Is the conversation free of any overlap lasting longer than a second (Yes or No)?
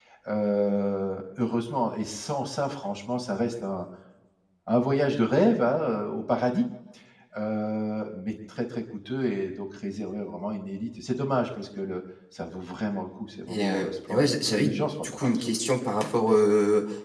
No